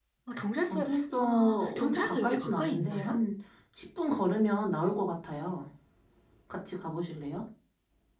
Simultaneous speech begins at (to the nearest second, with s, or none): 1 s